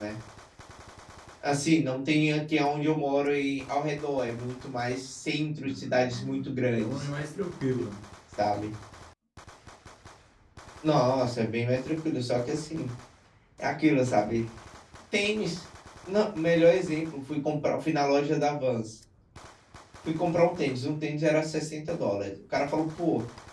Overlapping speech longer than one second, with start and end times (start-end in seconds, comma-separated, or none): 5.6-7.1